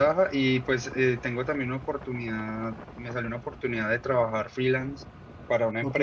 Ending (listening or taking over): listening